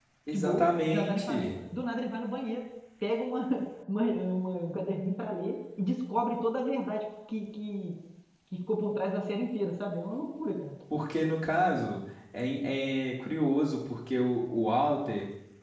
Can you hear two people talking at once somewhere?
Yes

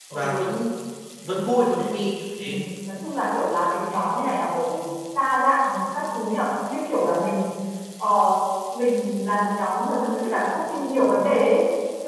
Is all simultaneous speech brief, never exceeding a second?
Yes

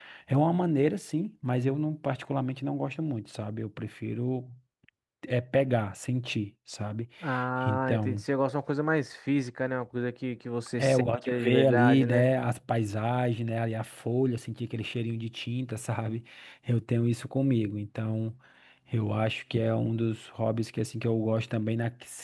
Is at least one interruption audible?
Yes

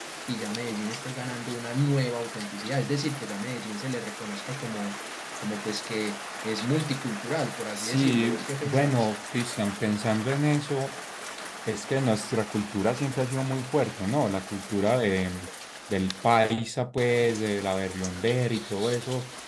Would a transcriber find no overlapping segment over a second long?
No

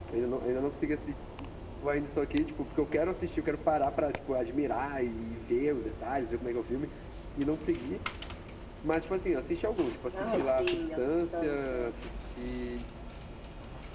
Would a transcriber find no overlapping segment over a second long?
No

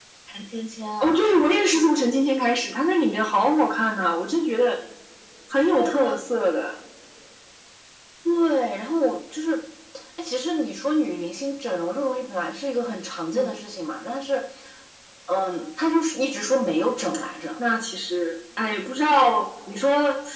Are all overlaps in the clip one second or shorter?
Yes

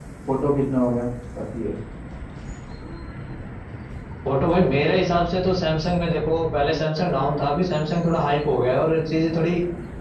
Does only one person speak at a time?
Yes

